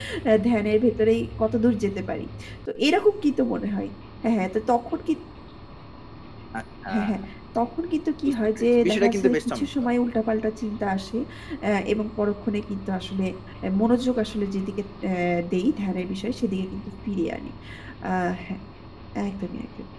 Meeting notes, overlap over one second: present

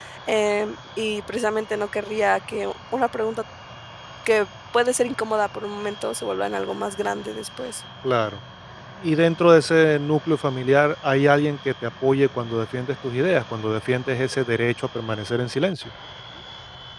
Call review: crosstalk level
none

